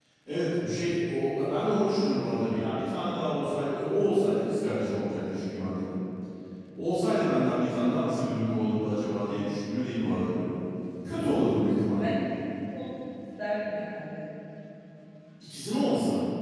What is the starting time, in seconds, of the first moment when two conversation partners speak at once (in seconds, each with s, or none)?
none